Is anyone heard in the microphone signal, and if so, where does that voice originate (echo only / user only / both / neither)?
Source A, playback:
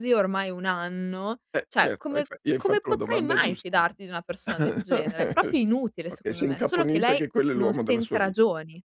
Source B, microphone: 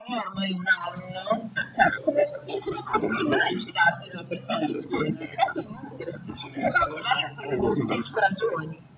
echo only